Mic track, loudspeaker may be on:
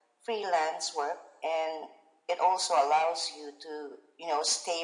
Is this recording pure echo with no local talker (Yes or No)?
Yes